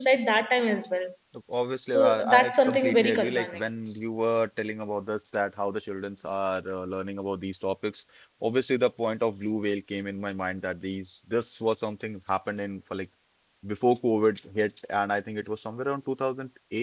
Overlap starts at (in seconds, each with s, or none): 2.0 s